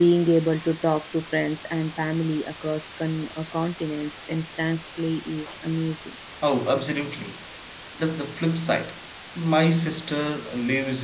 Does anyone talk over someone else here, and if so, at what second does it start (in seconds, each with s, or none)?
none